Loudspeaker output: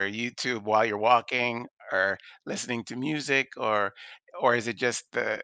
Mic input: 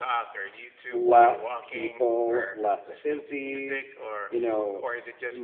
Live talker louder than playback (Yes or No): Yes